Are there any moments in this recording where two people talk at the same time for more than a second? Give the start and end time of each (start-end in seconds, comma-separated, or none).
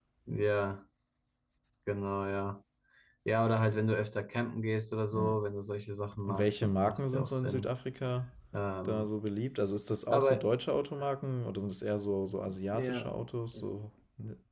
6.2-7.7